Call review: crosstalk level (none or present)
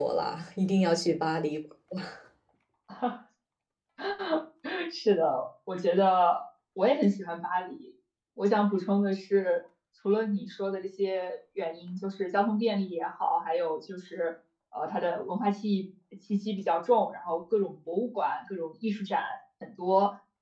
none